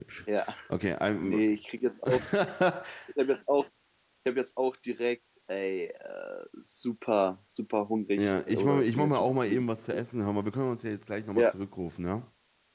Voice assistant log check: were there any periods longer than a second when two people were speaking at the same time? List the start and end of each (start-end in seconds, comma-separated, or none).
8.2-9.6